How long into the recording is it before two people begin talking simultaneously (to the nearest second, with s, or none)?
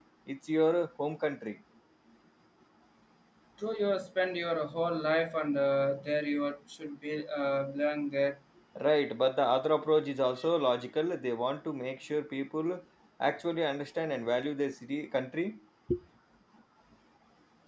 none